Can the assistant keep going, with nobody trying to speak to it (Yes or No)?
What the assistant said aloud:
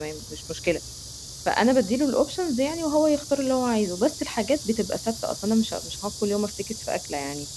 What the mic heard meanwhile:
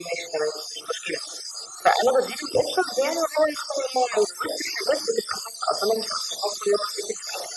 Yes